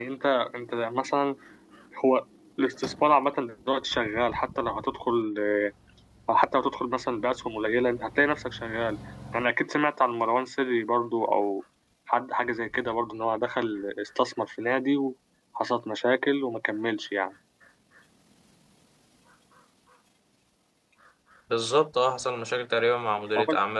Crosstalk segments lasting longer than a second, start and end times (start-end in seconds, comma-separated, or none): none